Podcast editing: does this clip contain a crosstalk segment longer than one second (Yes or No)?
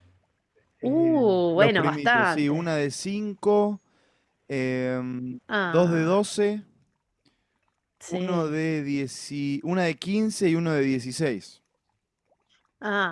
Yes